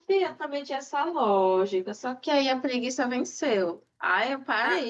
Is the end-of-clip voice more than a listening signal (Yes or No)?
No